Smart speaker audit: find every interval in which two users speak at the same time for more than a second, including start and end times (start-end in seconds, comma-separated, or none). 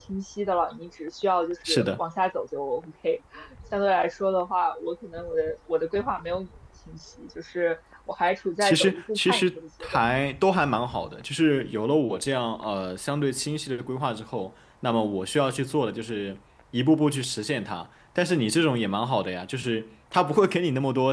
8.6-10.0